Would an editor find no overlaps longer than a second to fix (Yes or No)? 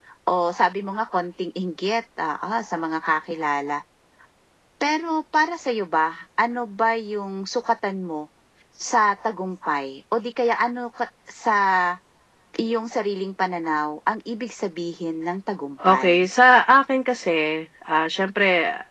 Yes